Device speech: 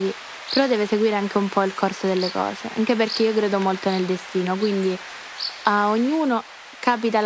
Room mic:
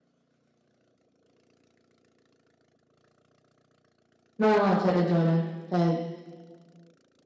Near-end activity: present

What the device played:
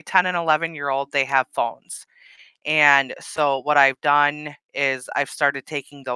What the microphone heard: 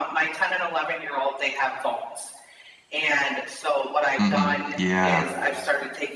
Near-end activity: present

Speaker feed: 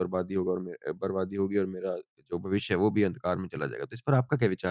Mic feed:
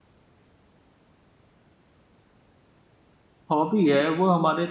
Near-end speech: present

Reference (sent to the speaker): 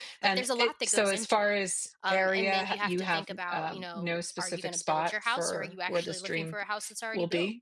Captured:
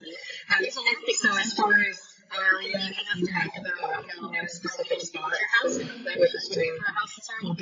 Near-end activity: present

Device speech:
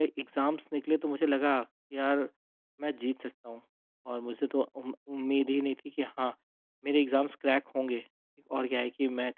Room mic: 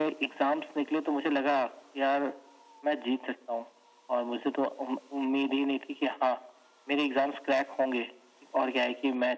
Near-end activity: none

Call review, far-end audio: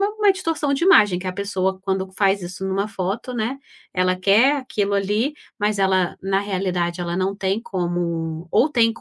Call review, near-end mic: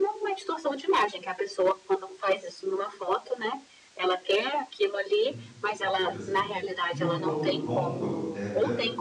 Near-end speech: present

